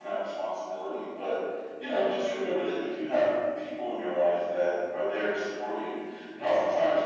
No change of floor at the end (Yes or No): Yes